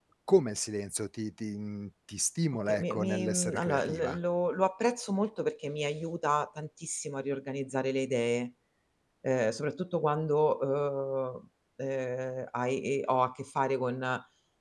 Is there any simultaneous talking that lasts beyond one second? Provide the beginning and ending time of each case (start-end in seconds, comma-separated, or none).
2.7-4.2